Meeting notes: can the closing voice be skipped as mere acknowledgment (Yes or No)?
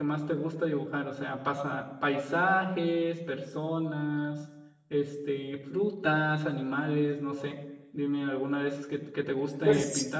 No